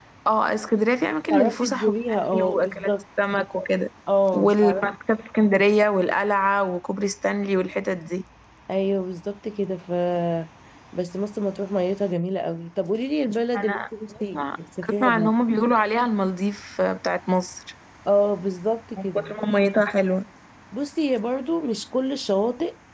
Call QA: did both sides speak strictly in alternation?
No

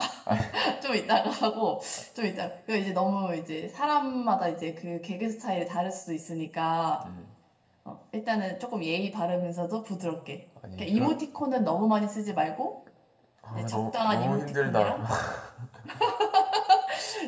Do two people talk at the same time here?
Yes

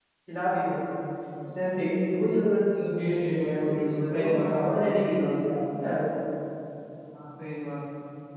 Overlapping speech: Yes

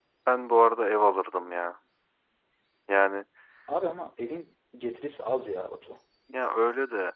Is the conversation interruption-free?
Yes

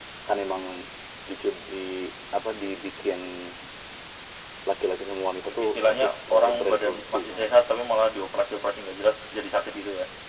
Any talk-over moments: Yes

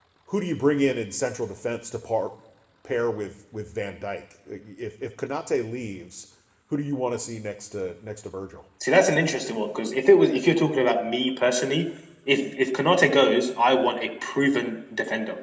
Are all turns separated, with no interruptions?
Yes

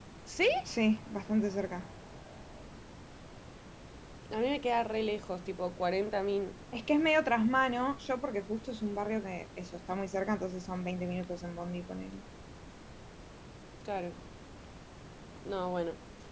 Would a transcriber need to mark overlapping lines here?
No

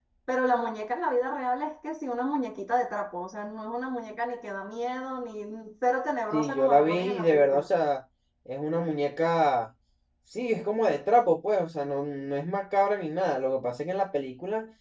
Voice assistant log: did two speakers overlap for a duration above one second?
Yes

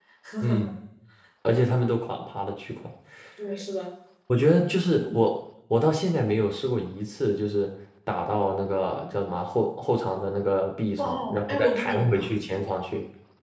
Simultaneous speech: Yes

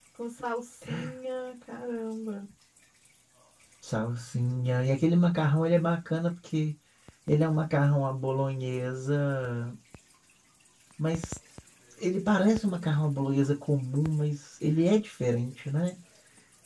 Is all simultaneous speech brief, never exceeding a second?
Yes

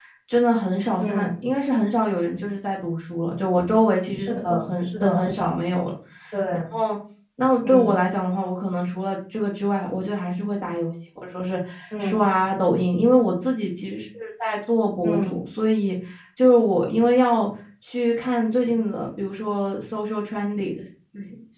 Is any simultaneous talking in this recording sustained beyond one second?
Yes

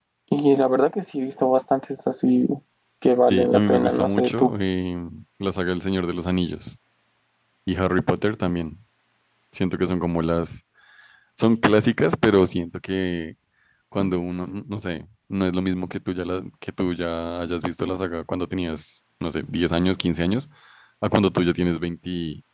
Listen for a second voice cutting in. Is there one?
Yes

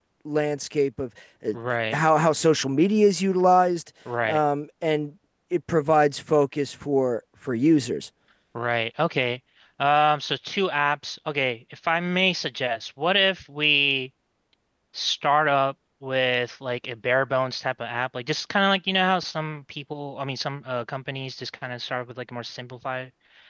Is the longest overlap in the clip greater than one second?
No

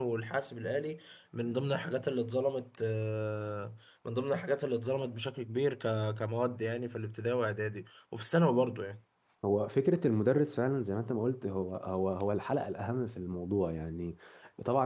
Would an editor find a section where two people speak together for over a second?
No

